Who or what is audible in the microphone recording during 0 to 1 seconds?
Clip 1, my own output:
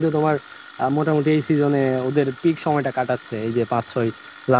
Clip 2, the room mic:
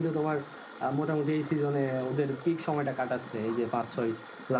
echo only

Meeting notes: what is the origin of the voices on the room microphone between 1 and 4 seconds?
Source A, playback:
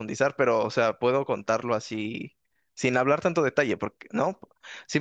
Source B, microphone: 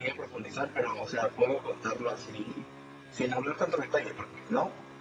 echo only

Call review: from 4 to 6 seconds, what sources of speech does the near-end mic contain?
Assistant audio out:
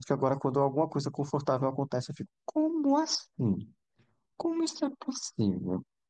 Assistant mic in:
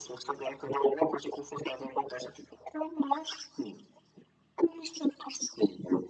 echo only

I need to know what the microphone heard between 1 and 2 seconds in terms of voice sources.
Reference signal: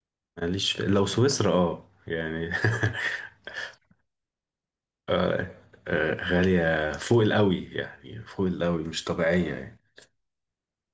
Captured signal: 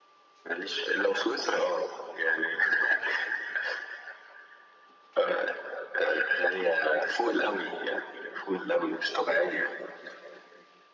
echo only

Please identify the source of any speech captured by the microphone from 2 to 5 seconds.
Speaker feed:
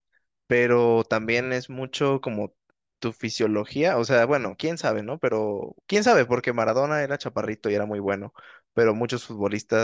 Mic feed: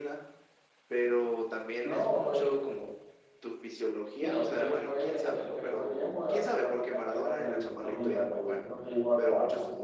both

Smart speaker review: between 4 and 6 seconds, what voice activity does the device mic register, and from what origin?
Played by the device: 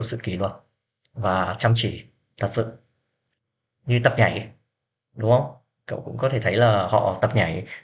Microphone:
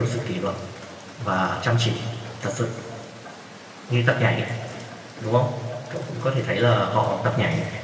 echo only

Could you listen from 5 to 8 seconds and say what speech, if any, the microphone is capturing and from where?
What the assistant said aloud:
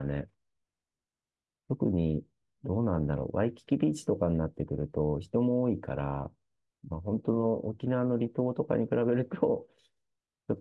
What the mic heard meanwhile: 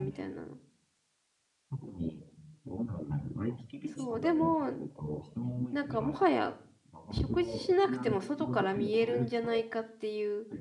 both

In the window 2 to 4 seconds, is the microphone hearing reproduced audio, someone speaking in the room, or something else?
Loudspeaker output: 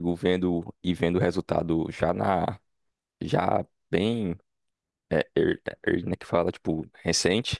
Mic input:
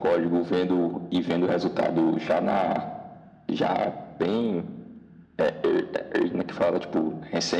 echo only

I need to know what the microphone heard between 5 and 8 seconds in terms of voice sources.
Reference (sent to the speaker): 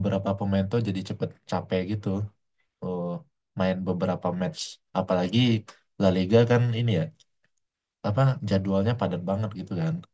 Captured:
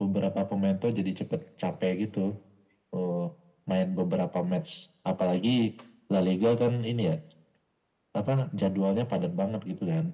echo only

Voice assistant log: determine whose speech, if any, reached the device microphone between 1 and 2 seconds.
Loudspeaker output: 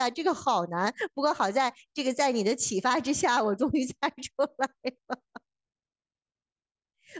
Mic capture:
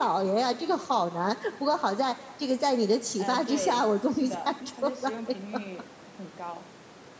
echo only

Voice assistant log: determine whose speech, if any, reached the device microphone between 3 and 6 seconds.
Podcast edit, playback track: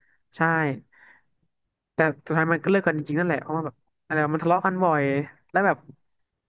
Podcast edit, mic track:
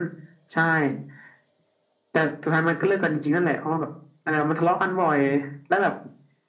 echo only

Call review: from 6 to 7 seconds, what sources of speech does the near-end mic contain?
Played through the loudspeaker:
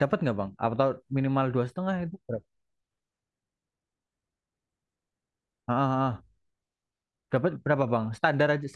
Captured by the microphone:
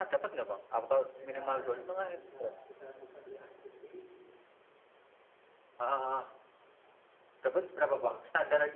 echo only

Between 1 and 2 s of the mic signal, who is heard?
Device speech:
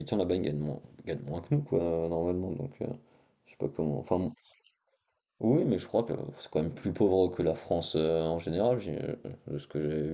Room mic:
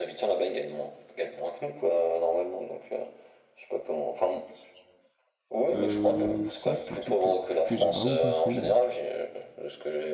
echo only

